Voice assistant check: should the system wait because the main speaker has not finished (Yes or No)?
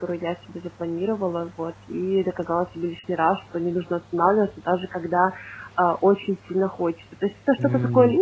Yes